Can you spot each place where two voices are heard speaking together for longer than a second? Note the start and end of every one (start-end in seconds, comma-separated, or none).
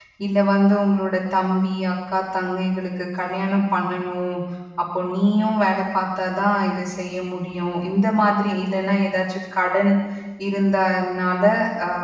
none